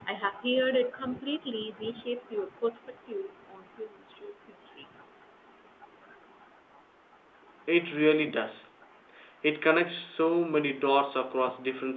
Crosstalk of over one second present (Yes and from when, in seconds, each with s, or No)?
No